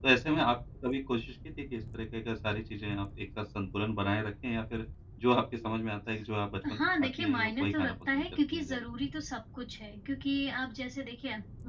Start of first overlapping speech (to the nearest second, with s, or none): 7 s